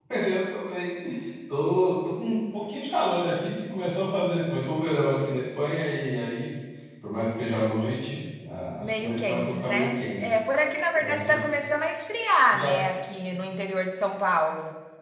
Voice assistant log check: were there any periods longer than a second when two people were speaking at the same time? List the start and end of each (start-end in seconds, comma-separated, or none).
8.8-10.4